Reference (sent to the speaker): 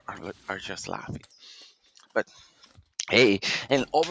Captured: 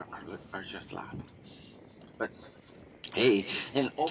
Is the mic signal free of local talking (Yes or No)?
Yes